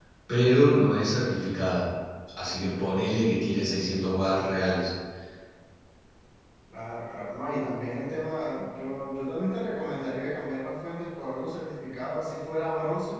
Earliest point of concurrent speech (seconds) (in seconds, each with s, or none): none